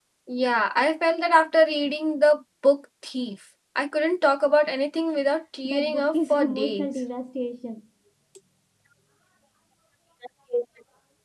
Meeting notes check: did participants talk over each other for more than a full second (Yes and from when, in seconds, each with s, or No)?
Yes, from 5.6 s